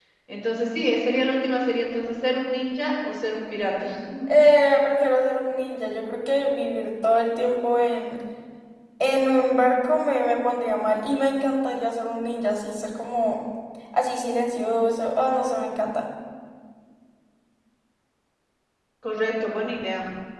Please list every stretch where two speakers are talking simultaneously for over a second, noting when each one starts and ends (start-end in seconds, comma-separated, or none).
none